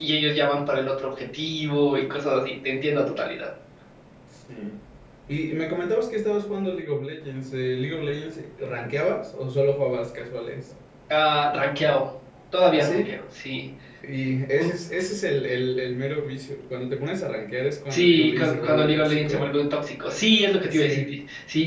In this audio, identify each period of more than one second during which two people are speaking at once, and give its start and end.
17.9-19.5

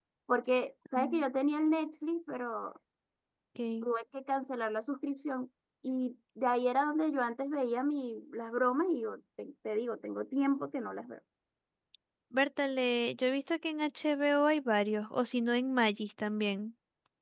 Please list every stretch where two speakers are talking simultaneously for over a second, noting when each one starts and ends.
none

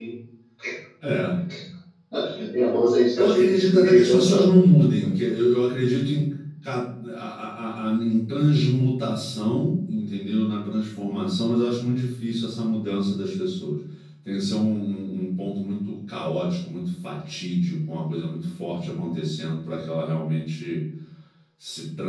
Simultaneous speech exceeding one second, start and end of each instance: 3.1-4.6

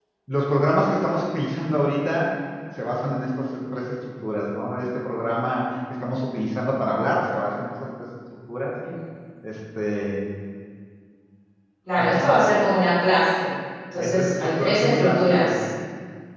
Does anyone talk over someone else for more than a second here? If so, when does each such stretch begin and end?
14.0-15.6

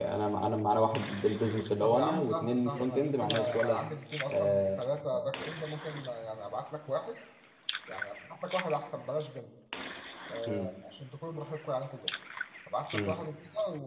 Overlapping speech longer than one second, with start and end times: 1.8-3.8

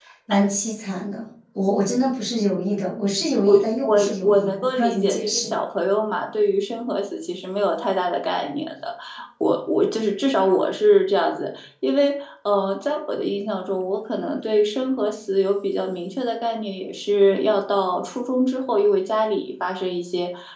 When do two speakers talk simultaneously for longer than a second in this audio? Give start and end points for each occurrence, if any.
3.8-5.5

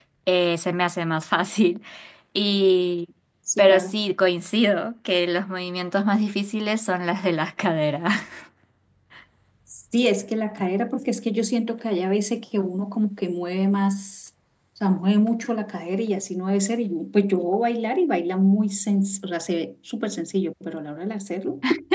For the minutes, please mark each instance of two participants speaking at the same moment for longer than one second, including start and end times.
none

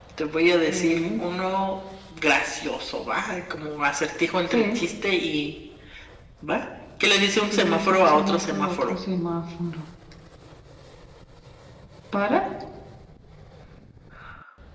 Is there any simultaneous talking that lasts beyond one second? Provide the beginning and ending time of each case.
7.5-8.9

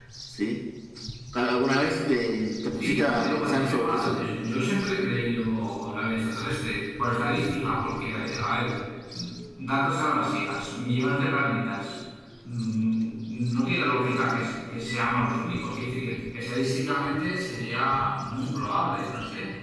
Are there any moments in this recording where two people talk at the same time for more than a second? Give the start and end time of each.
2.8-4.2

